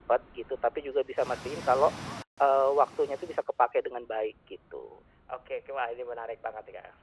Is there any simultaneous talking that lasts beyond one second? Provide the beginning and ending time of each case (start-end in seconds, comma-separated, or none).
none